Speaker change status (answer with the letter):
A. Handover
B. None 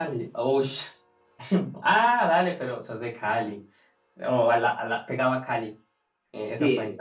A